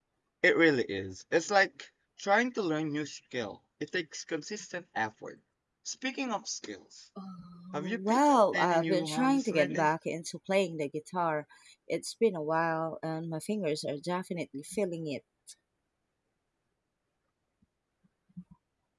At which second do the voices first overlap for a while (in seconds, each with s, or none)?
7.8 s